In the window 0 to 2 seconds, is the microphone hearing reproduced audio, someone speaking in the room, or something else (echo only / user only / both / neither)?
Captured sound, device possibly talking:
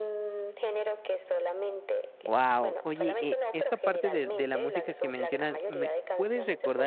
echo only